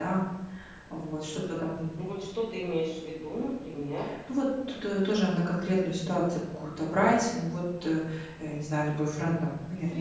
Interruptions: none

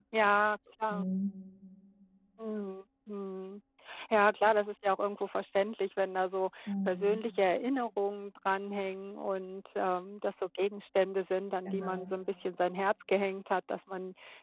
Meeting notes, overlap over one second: none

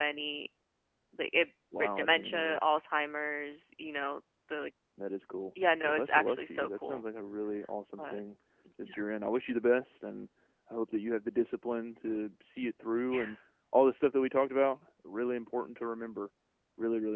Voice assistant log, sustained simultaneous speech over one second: present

